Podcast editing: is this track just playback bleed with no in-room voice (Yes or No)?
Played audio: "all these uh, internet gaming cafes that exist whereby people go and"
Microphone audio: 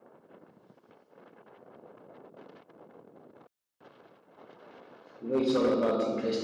No